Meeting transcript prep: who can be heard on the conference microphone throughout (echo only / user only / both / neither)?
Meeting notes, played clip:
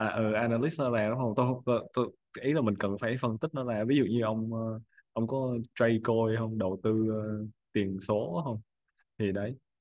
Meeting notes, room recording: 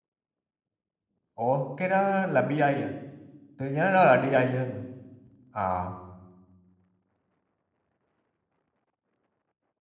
user only